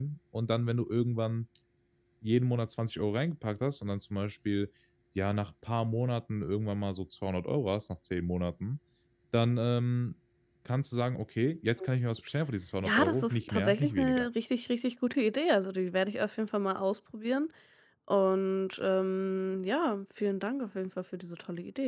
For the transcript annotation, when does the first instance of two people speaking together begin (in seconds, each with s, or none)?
12.8 s